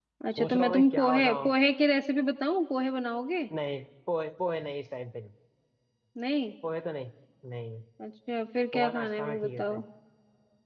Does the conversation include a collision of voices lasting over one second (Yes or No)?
Yes